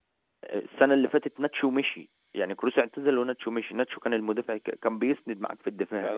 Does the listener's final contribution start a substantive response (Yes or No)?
Yes